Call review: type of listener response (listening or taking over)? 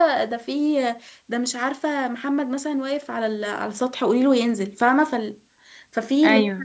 listening